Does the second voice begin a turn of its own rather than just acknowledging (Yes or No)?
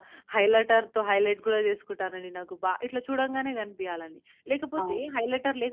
No